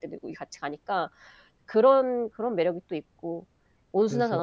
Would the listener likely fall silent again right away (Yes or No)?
Yes